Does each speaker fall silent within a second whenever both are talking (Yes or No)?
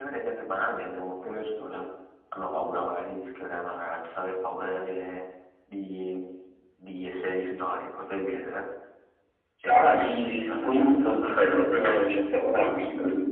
No